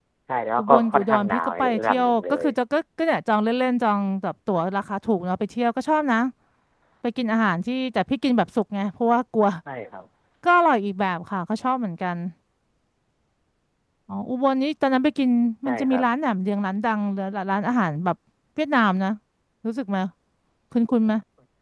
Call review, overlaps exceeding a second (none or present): present